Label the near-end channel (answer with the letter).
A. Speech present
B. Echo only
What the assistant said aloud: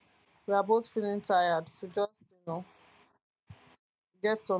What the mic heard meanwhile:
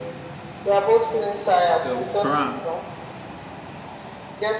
A